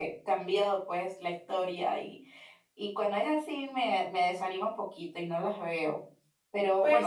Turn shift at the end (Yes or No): No